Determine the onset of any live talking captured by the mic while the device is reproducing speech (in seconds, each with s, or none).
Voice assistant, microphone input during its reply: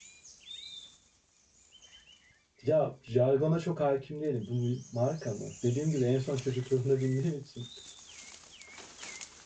2.6 s